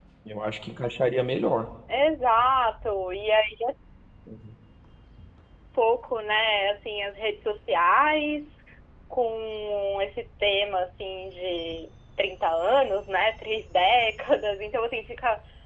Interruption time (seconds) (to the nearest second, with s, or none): none